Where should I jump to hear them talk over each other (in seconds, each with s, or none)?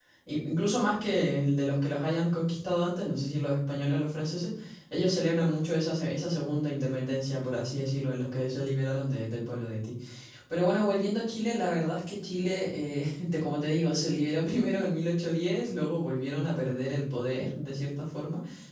none